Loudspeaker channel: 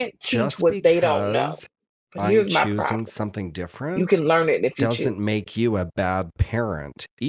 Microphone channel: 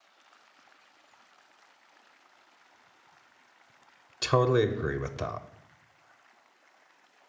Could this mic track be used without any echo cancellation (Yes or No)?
Yes